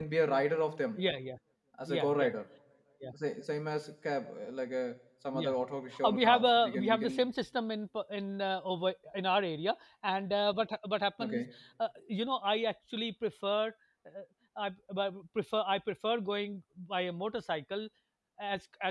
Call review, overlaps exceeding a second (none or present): present